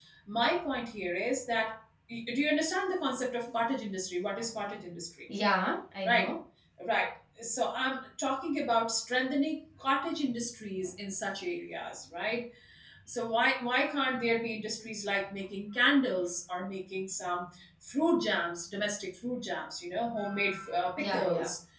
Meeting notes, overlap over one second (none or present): none